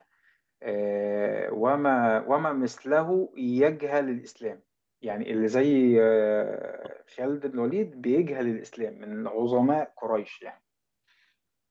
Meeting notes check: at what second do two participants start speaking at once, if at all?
none

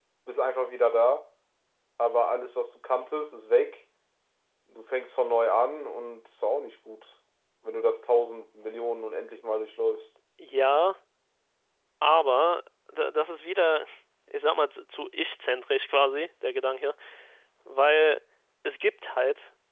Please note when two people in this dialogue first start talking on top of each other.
none

